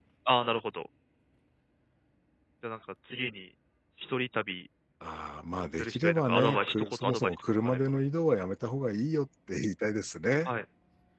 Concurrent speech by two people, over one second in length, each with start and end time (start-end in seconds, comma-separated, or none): 5.8-7.8